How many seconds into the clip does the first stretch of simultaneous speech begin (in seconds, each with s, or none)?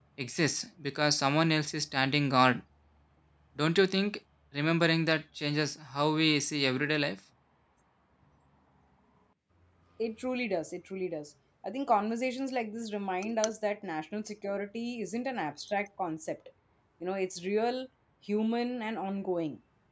none